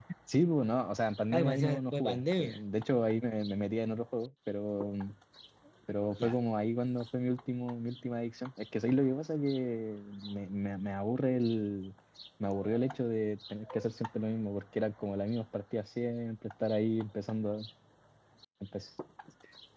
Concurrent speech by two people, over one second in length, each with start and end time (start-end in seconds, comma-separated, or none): 1.3-2.6